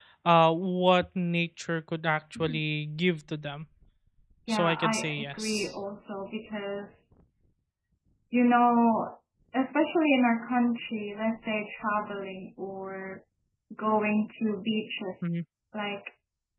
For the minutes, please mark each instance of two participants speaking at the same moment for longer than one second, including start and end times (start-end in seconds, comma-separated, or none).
4.5-5.7